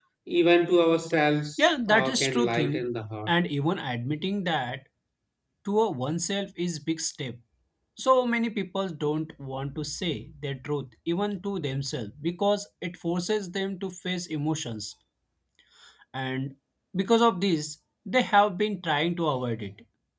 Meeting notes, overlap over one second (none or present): present